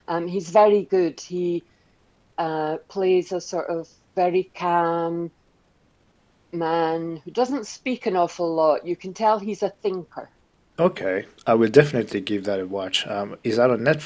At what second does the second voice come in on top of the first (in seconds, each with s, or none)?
none